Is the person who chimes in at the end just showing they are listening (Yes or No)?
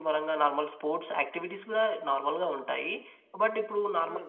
Yes